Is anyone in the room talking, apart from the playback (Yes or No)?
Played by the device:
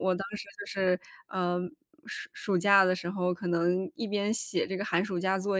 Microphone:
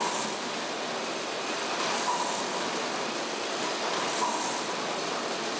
No